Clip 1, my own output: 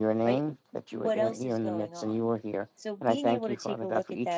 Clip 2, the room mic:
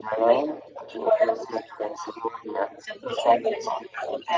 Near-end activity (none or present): none